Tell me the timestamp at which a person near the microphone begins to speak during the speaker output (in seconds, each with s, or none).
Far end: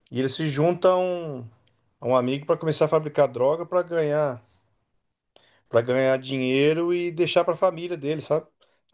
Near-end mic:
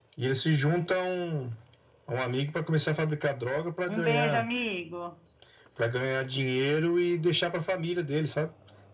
3.9 s